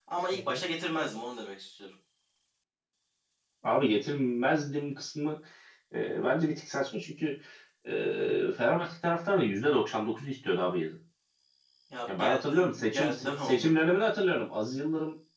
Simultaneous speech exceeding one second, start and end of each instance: 12.1-13.7

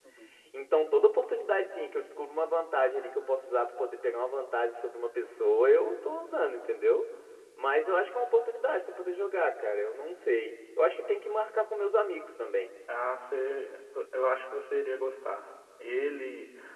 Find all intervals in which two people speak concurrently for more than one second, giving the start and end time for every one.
none

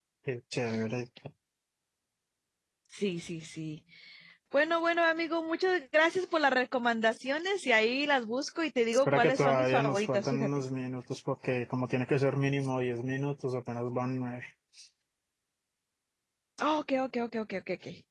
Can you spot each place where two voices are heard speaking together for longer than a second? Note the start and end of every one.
9.1-10.5

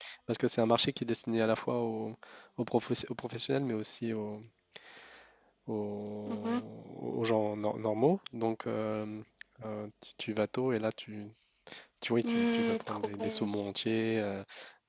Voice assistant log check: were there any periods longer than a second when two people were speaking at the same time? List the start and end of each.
12.2-13.4

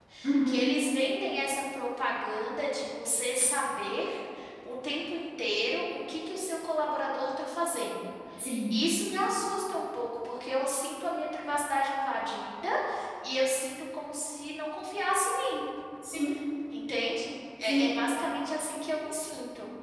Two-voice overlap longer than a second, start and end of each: none

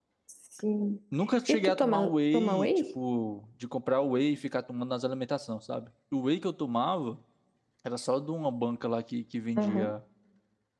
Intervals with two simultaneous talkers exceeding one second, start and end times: 1.5-2.7

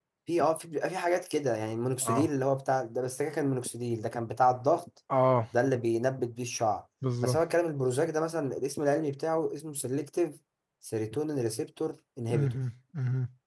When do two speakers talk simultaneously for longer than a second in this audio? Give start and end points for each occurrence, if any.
none

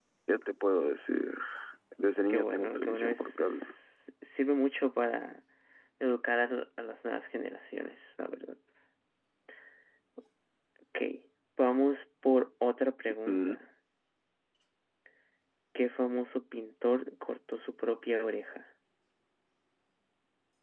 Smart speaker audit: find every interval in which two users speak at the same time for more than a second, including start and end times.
2.3-3.7

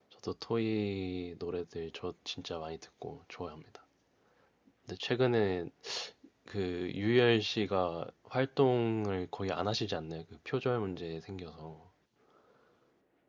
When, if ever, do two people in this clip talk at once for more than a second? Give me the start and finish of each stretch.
none

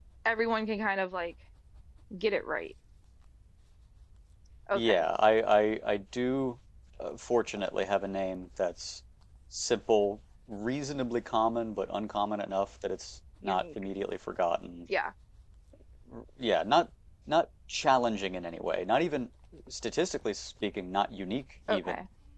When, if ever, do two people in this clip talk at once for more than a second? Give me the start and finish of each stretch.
none

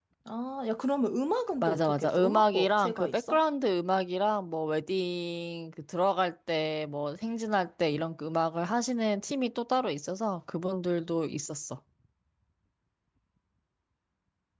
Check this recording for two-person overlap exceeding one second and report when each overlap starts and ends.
1.6-3.4

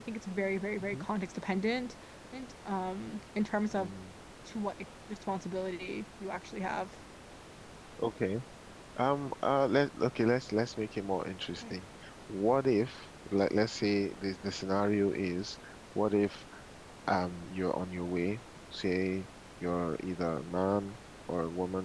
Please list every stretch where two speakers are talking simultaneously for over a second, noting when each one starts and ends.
none

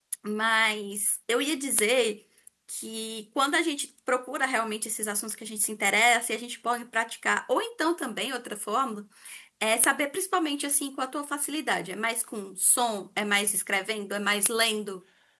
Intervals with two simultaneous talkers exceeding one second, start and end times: none

